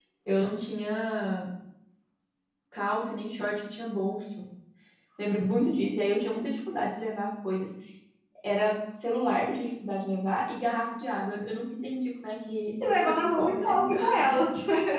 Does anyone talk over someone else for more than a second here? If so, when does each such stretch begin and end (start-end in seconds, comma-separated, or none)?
13.0-14.5